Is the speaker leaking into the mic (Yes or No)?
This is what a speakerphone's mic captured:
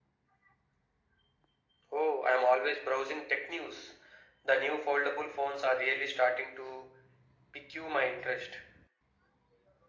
Yes